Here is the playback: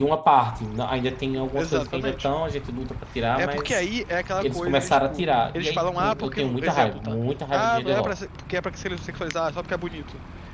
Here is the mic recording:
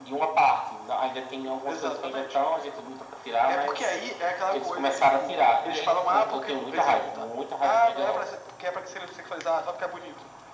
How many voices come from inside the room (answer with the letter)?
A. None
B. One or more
A